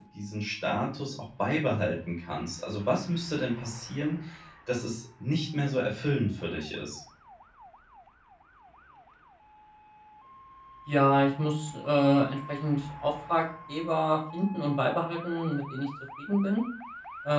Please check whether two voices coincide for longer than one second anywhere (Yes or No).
No